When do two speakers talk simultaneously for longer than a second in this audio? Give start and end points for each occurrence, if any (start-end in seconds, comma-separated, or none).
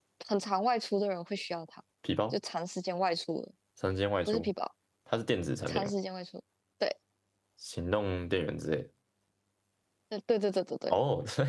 none